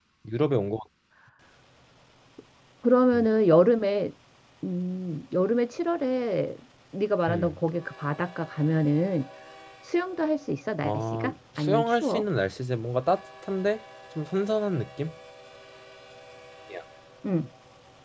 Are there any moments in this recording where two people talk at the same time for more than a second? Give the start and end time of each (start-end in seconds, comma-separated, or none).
10.8-12.2